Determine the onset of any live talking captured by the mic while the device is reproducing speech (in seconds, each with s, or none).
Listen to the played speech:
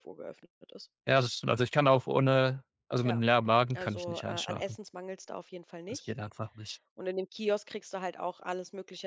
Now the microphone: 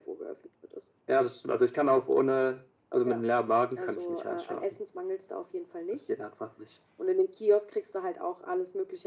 none